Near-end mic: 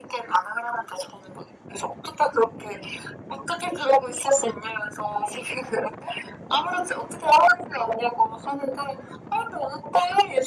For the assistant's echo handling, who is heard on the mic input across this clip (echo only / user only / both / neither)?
echo only